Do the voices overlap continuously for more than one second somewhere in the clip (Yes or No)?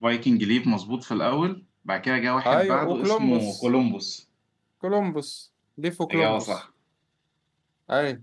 Yes